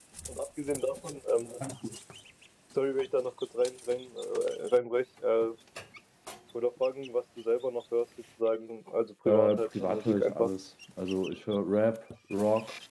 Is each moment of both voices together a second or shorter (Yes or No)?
No